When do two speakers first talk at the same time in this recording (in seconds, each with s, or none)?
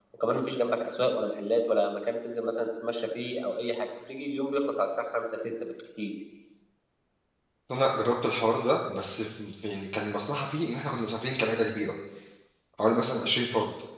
none